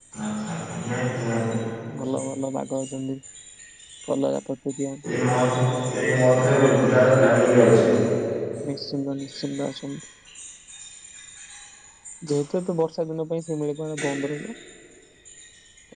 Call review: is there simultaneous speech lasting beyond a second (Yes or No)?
No